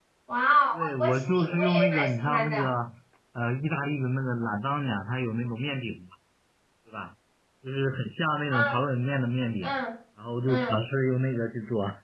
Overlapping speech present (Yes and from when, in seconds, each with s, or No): Yes, from 0.7 s